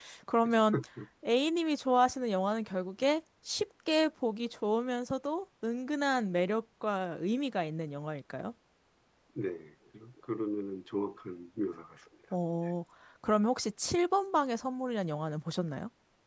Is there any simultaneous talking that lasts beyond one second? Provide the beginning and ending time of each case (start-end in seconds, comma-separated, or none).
none